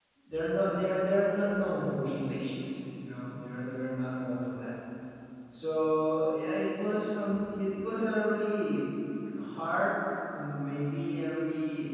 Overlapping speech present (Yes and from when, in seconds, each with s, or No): No